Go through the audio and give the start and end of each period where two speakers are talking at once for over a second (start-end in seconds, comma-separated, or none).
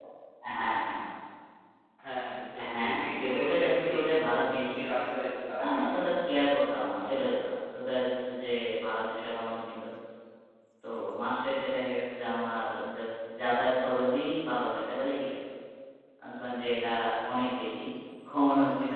2.6-3.9